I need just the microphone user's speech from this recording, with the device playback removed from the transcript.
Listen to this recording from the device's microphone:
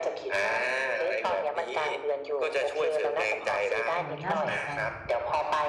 โอ้ย น่าสนใจ

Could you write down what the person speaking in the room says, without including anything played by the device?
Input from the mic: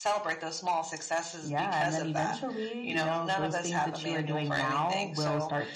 none

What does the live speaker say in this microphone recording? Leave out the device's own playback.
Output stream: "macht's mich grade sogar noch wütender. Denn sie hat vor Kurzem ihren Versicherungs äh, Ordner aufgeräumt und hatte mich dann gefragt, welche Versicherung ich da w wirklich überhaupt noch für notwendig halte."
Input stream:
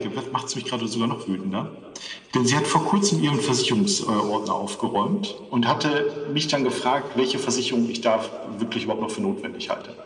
none

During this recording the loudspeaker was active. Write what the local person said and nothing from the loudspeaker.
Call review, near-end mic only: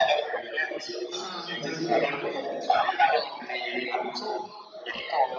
Heeh, lebih lembut. Aku tuh

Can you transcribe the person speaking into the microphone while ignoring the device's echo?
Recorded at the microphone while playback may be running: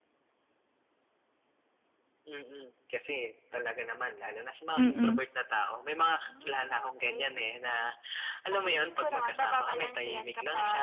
Mm.

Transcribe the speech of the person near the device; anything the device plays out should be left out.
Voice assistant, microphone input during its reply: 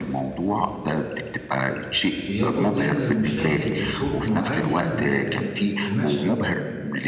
بيربُط ذِهن المُشاهد بصوت مُعيّن ب ب ب بمشهد معيّن.

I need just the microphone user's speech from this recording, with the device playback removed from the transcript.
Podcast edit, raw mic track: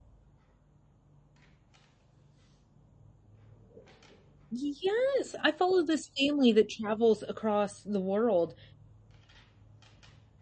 Y yes. I follow this family that travels across the world

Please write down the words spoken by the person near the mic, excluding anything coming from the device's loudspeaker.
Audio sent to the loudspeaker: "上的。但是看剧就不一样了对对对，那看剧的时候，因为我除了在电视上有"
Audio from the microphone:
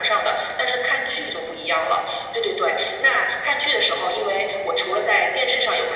none

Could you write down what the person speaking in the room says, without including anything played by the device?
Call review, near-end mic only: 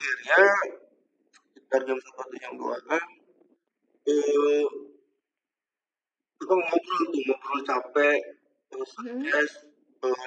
Mhm.

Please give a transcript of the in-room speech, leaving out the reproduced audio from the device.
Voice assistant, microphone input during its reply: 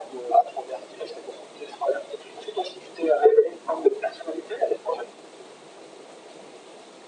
none

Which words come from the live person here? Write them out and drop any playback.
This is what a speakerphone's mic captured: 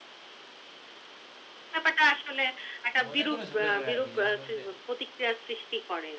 মজা করেও ঝগড়া করে আরকি। যেমন ধরুন যে

